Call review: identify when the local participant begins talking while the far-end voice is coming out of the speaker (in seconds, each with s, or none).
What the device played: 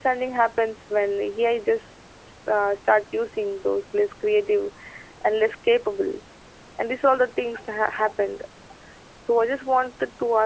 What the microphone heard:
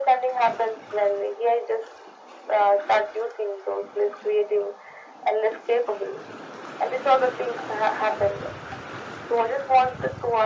none